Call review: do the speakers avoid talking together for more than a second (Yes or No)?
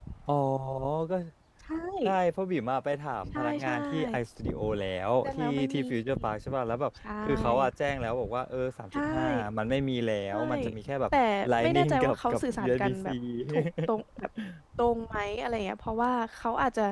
No